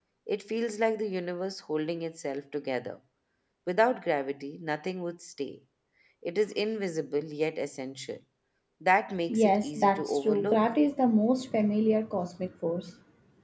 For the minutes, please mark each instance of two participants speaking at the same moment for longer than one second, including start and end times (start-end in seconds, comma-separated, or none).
9.3-10.6